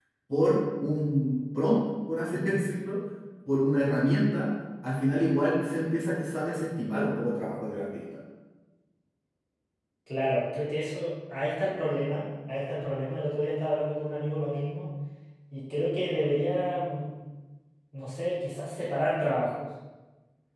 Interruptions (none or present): none